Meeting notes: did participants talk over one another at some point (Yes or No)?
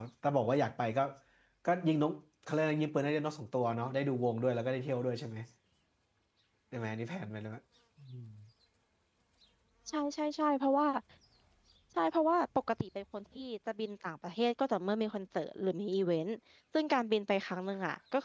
No